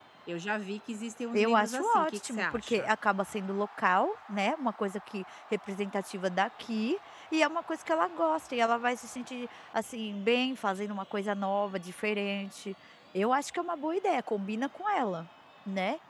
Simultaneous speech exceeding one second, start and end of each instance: 1.3-2.9

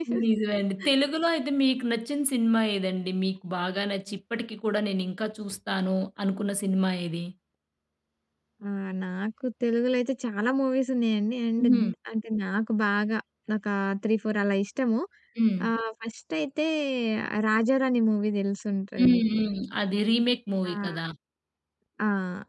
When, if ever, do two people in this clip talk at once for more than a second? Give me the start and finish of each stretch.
none

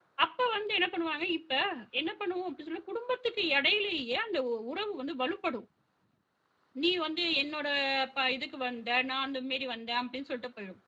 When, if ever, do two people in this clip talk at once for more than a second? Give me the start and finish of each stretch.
none

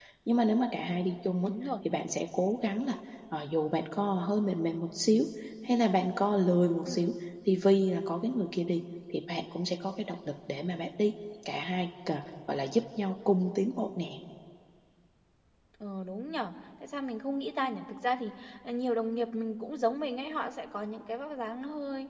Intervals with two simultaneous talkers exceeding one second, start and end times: none

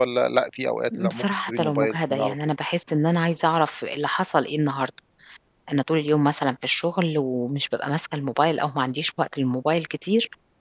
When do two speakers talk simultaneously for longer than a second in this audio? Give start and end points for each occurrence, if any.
1.1-2.5

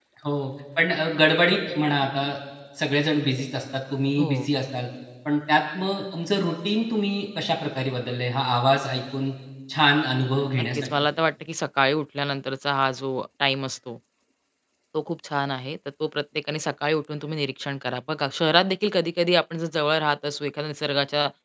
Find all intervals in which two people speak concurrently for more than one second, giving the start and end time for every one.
none

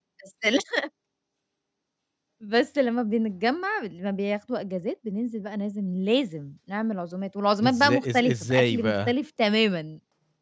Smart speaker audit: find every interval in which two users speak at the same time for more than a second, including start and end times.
7.6-9.1

